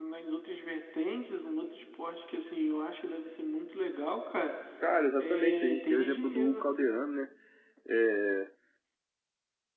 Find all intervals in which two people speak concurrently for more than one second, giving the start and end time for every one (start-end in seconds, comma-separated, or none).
5.2-6.8